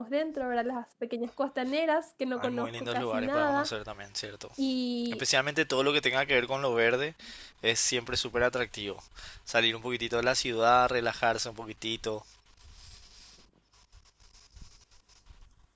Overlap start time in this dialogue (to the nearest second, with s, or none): 2 s